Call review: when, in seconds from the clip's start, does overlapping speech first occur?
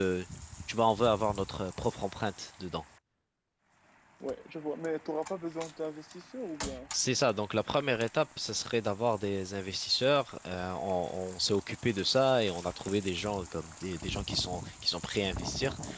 none

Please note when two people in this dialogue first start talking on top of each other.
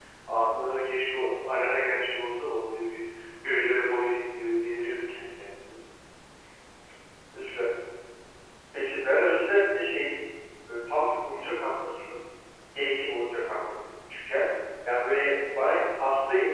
none

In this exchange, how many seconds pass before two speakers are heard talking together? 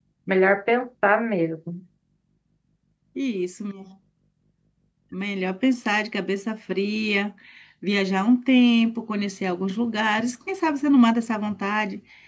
none

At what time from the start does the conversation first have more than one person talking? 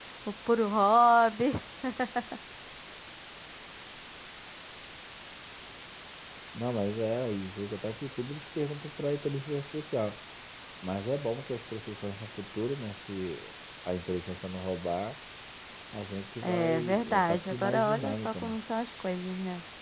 16 s

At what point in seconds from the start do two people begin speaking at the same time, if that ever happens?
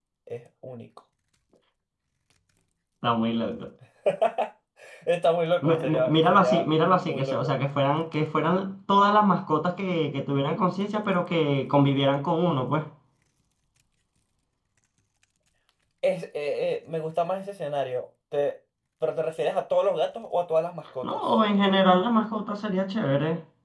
6 s

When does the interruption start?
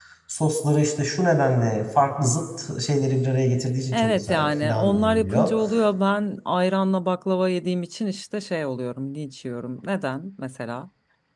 4 s

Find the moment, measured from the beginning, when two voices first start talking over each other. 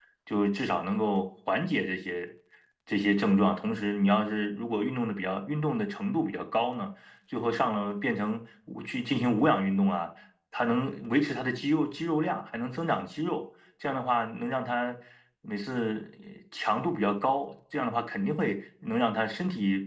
none

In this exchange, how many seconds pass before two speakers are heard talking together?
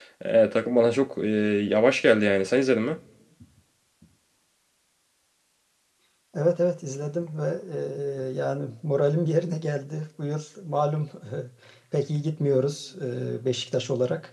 none

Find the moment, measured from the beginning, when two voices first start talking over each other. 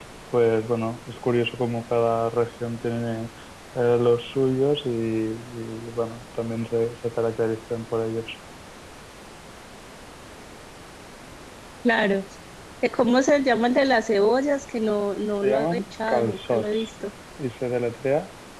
15 s

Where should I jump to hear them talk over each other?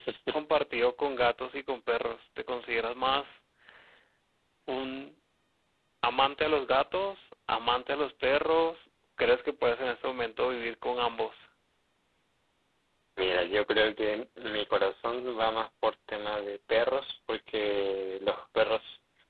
none

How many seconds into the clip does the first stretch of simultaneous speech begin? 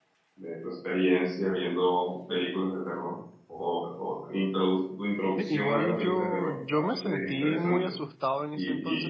5 s

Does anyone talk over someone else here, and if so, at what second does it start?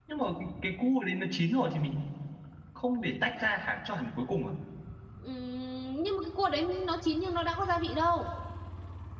none

